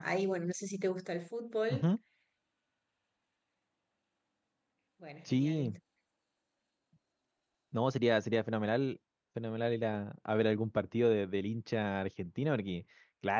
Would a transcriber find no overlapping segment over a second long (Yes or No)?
Yes